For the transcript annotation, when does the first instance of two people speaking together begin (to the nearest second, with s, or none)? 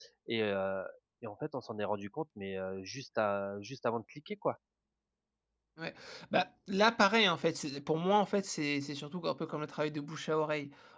none